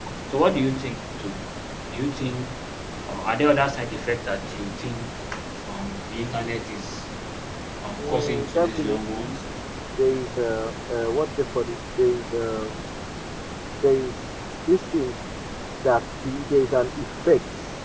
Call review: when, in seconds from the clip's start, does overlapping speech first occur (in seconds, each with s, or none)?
8.0 s